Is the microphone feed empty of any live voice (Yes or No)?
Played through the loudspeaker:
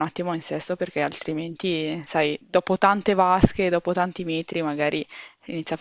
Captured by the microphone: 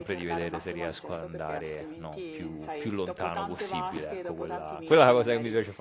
No